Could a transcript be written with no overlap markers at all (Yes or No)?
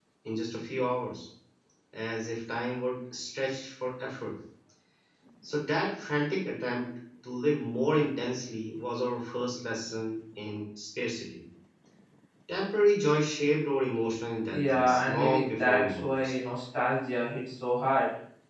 No